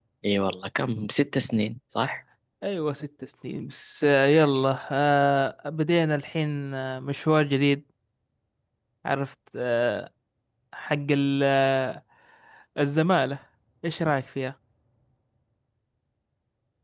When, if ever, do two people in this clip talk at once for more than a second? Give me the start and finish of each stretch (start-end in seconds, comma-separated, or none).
none